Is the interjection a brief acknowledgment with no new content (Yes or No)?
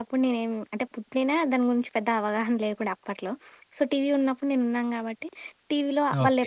Yes